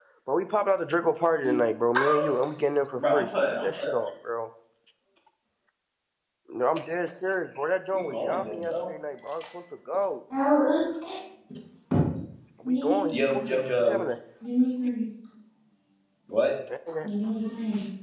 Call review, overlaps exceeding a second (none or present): present